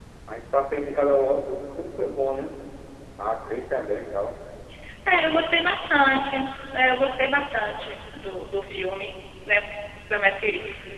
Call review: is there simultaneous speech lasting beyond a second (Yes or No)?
No